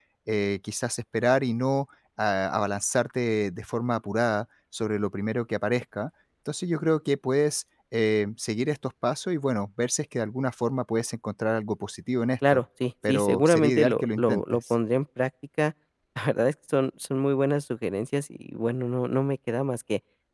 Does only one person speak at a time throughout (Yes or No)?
No